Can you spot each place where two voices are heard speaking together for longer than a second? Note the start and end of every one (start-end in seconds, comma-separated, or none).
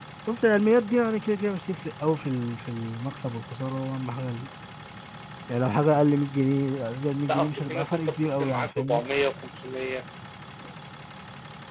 7.3-9.0